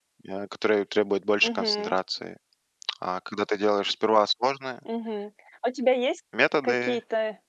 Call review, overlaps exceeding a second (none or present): none